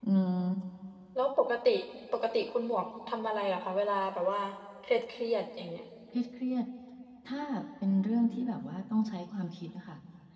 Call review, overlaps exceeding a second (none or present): none